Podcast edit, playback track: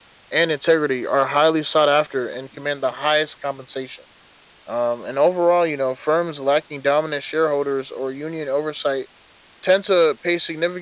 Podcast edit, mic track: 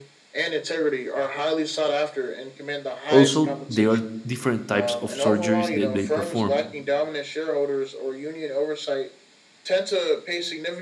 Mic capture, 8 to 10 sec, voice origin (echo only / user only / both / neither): echo only